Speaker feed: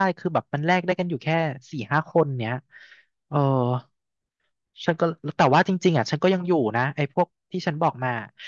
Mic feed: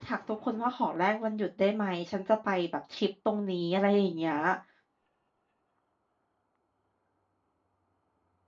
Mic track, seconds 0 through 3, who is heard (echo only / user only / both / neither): user only